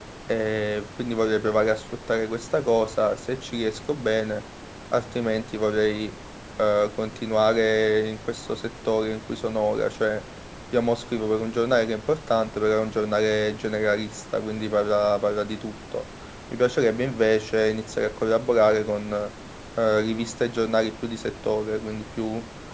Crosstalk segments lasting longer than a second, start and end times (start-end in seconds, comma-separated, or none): none